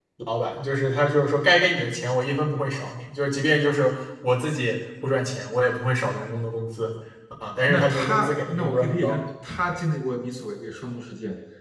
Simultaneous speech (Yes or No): Yes